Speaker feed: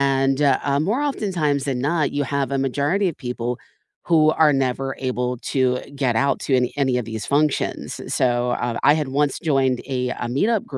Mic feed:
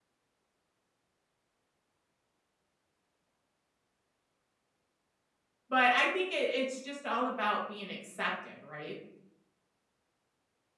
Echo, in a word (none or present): none